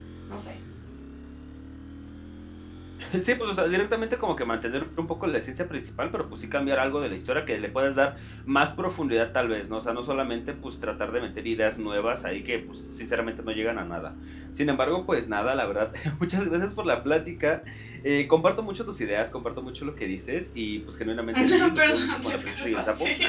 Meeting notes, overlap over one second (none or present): present